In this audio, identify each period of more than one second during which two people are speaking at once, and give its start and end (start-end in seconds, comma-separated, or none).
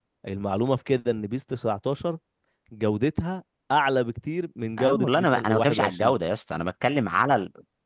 4.8-6.2